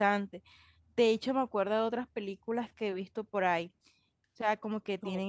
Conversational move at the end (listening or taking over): listening